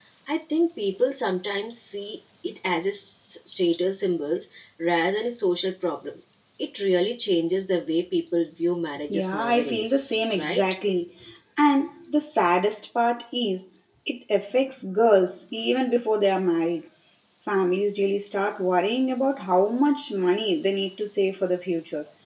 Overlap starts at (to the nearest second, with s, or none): 9 s